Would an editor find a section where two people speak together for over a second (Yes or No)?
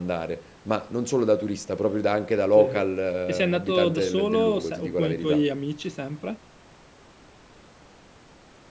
Yes